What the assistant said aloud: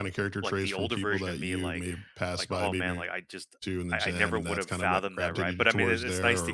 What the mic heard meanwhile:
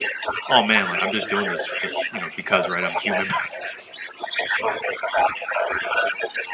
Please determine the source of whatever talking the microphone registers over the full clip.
both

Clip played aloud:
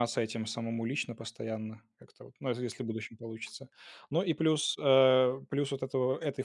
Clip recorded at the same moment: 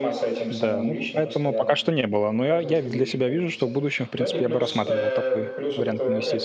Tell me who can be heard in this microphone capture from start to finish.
both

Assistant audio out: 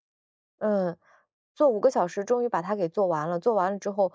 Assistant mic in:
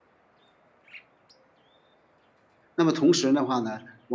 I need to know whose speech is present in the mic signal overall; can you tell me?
user only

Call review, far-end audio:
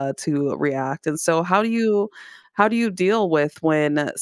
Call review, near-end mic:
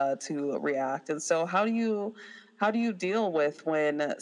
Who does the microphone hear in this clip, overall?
echo only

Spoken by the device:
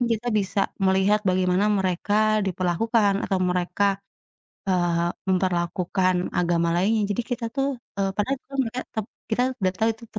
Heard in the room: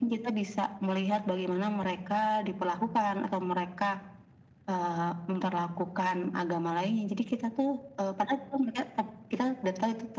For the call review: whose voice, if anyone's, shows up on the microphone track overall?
echo only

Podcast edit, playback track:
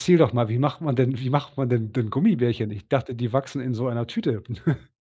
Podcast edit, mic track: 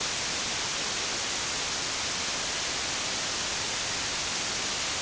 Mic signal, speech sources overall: neither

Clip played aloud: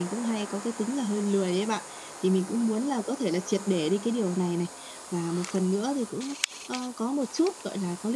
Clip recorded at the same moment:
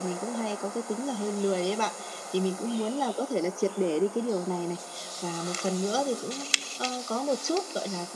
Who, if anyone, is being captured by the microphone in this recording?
echo only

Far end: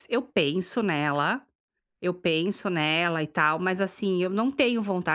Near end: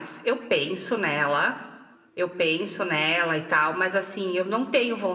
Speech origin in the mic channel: echo only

